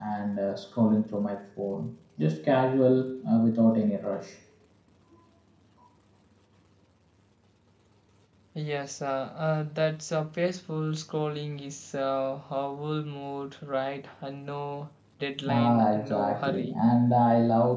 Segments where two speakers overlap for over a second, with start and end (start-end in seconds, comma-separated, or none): 15.5-16.8